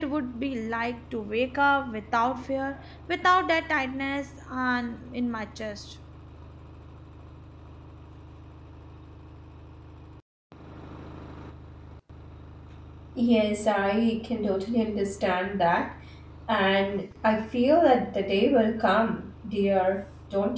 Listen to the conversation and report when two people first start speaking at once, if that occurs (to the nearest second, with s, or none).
none